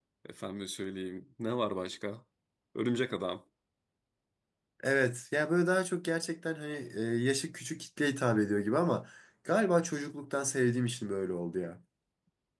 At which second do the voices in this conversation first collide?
none

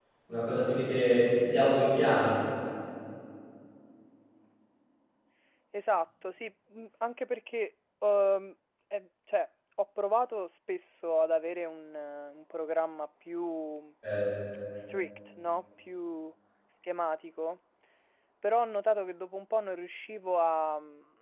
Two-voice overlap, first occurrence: none

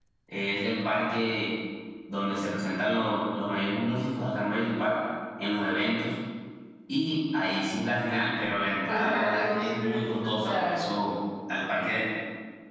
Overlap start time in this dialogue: 9 s

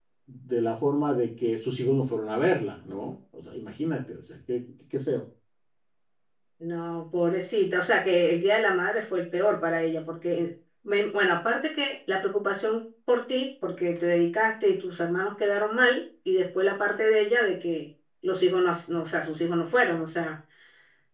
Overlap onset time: none

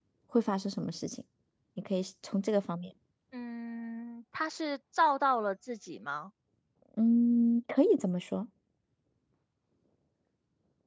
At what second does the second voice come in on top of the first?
none

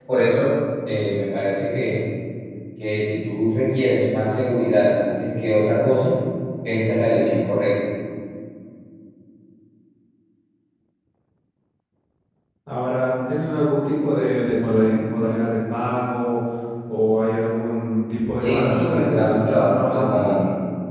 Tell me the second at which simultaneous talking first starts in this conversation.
18 s

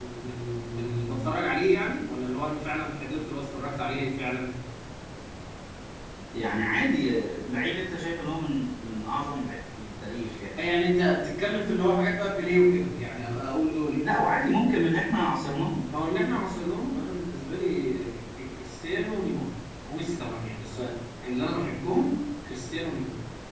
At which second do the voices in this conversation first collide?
none

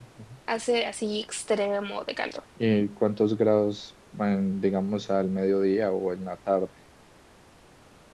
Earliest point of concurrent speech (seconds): none

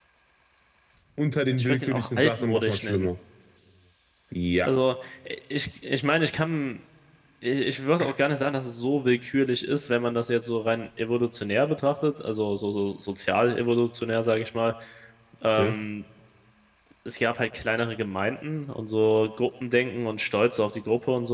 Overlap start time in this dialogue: 2 s

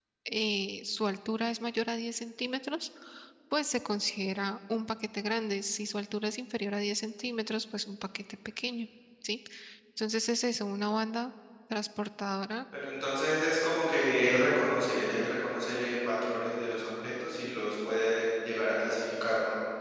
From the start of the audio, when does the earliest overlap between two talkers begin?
none

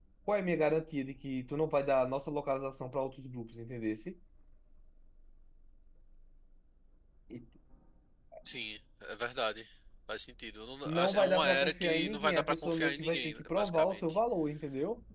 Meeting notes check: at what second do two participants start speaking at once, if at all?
11 s

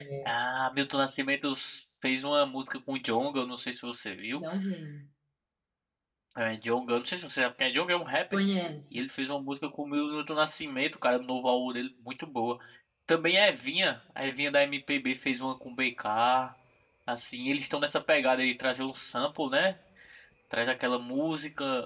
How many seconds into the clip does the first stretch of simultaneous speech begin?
none

